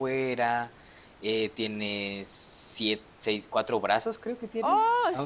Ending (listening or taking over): taking over